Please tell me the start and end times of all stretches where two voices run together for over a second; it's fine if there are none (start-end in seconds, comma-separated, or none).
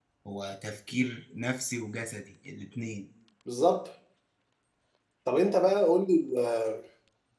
none